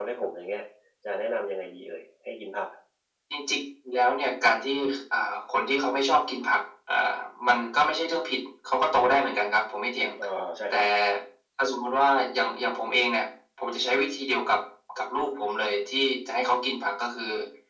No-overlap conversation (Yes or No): Yes